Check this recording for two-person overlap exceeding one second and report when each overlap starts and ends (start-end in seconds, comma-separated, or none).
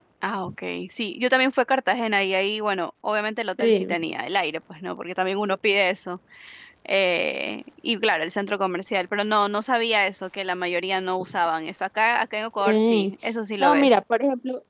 none